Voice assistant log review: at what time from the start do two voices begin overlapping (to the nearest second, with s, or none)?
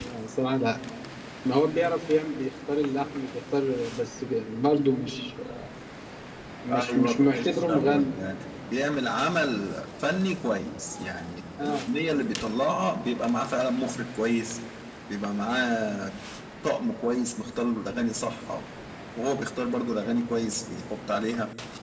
7 s